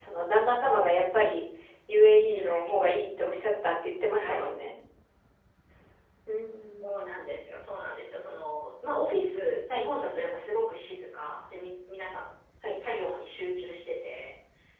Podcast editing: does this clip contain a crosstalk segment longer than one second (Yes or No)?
No